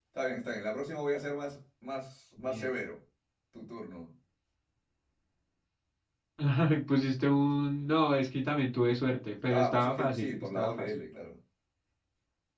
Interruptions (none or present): present